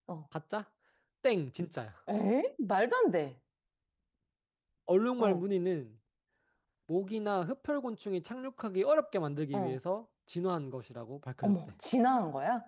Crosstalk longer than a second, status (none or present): none